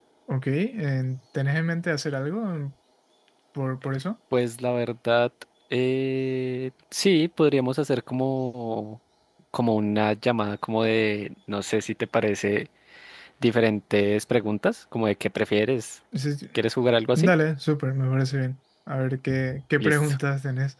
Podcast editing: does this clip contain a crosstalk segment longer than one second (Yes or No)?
No